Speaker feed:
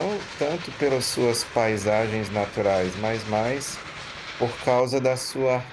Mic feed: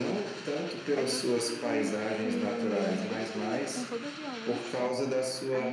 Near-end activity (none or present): present